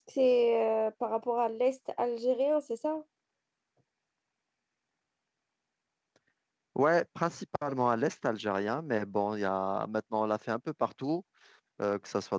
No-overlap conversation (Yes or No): Yes